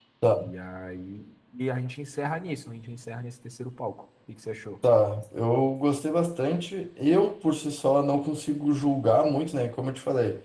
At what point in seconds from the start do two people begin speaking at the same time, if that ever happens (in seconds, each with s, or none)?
none